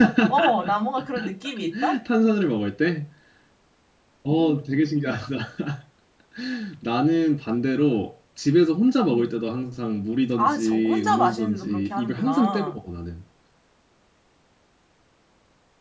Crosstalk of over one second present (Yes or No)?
Yes